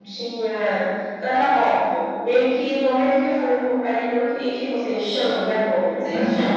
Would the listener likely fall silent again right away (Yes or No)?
No